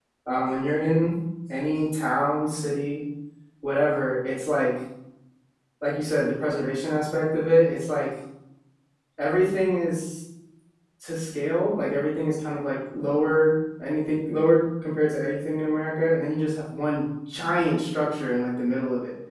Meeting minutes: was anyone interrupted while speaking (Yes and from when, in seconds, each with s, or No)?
No